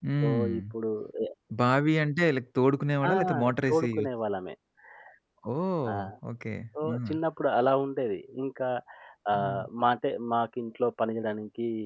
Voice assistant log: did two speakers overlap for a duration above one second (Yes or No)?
No